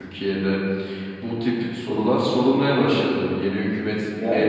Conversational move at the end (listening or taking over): taking over